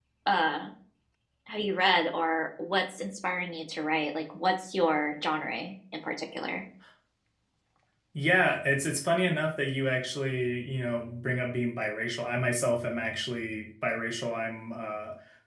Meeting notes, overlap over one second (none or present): none